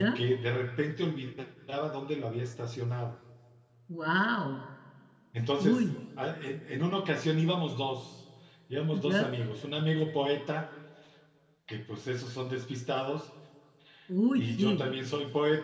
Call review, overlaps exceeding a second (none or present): none